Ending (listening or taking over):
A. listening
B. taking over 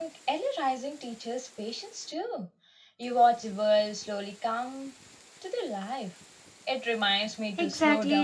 B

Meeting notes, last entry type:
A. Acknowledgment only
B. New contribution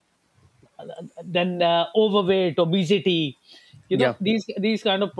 A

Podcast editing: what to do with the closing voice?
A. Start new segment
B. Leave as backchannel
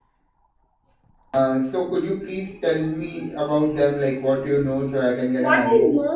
A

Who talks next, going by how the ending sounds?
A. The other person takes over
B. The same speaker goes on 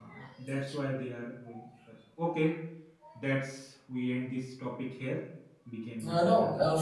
A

